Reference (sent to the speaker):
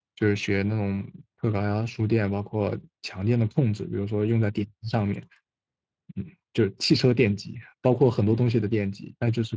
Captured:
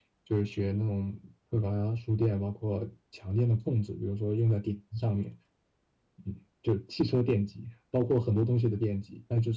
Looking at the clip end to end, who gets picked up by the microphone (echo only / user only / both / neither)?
echo only